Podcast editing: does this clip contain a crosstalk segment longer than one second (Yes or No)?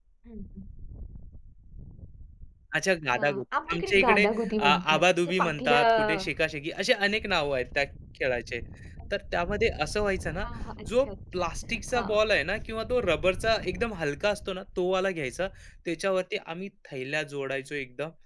Yes